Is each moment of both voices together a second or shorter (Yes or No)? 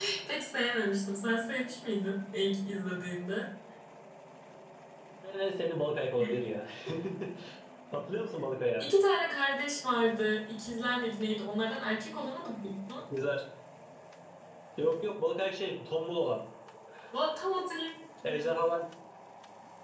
Yes